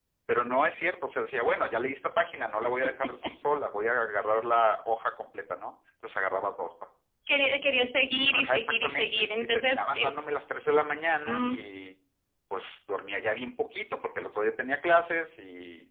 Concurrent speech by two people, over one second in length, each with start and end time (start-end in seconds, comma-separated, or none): 8.3-10.1